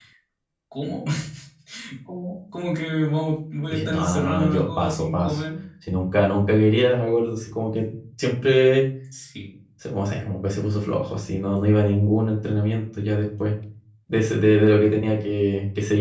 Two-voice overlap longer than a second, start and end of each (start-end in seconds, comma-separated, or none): 3.7-5.4